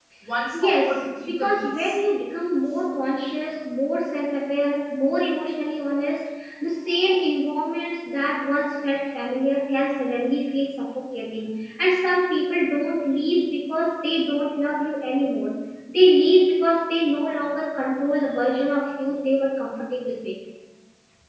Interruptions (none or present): present